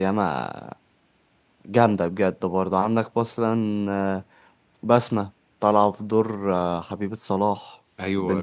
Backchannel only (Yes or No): No